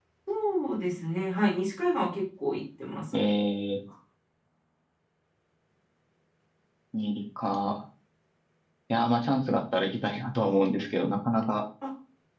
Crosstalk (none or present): none